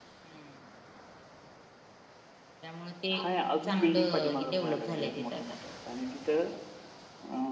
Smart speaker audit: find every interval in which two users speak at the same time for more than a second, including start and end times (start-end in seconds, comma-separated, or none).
3.6-5.4